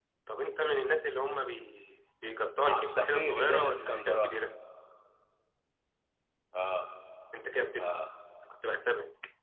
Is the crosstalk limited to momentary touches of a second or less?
No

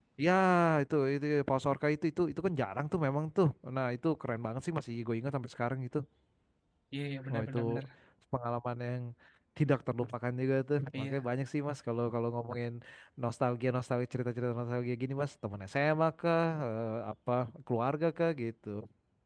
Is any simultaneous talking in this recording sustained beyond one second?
No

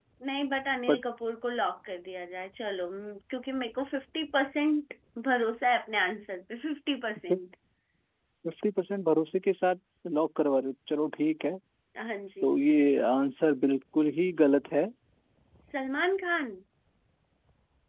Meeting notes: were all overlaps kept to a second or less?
Yes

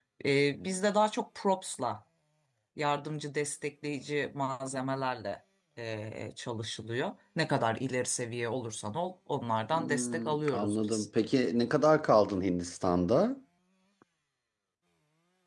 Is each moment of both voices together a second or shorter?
No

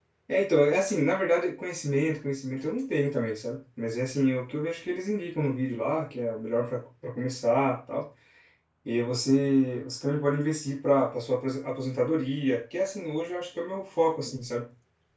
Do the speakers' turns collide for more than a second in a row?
No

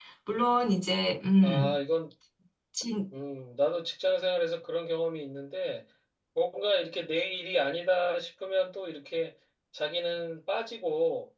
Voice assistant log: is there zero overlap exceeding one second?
Yes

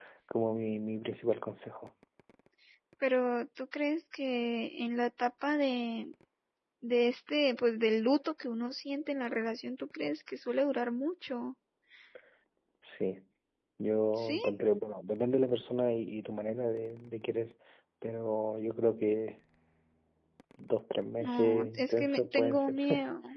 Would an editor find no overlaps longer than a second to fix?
No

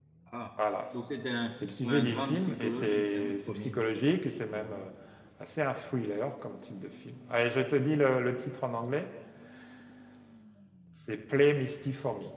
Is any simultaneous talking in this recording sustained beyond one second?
Yes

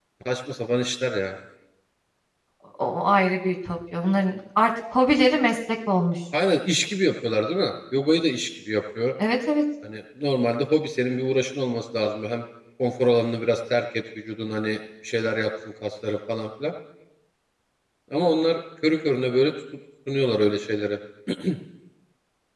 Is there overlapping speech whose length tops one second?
No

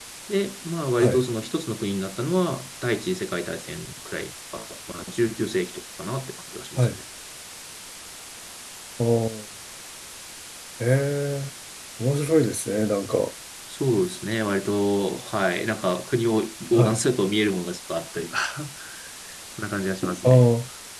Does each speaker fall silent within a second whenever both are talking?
Yes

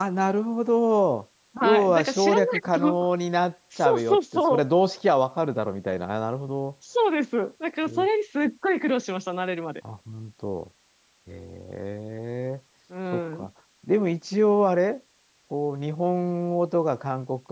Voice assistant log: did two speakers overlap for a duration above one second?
Yes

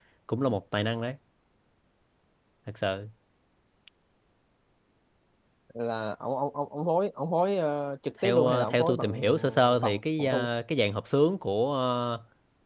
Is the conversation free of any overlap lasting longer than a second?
No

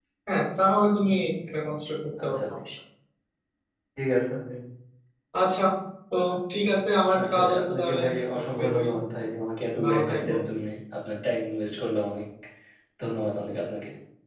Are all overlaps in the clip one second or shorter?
No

